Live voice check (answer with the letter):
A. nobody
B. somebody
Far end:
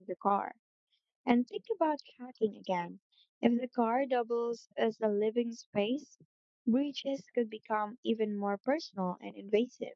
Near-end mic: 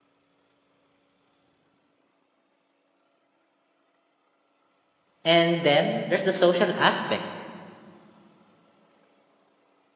B